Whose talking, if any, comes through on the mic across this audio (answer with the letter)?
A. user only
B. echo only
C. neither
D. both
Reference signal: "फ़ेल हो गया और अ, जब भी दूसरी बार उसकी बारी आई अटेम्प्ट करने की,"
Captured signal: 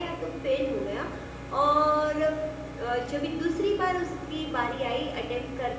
B